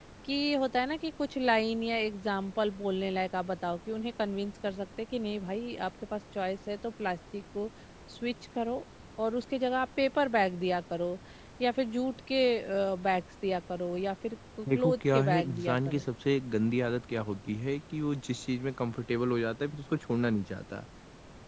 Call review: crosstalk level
present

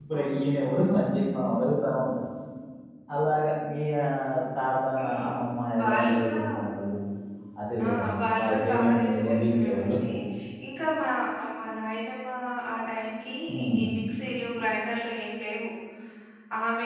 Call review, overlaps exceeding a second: present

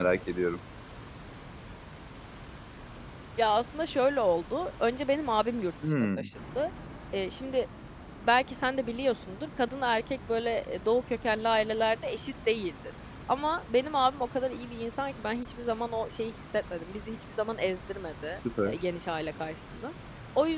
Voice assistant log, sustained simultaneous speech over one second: none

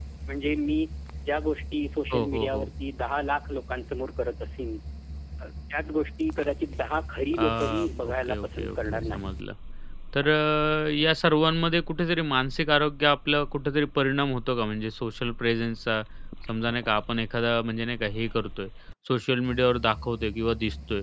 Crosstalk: present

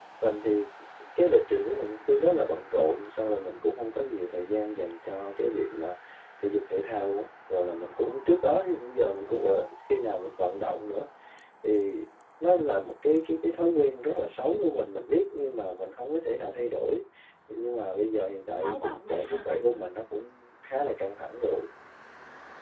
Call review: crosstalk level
present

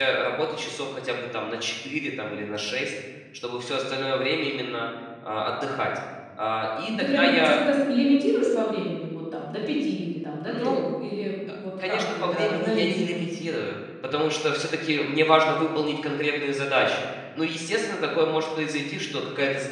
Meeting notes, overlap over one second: present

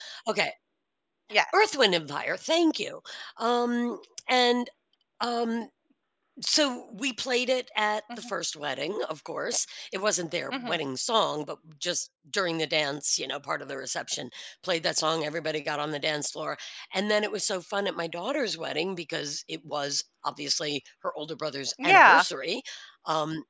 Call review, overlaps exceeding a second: none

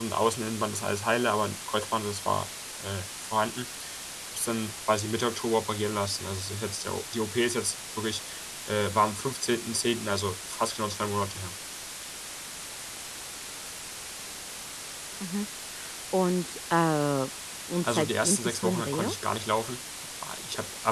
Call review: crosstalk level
present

